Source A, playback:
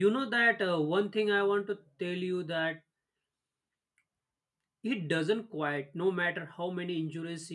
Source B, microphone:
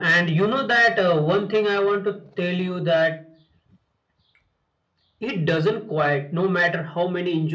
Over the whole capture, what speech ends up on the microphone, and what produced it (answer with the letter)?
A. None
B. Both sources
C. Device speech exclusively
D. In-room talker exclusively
C